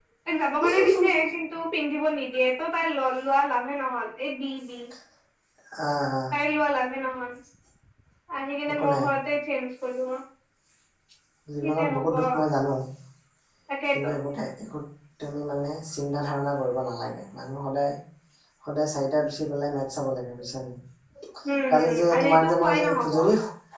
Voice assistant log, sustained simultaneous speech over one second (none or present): present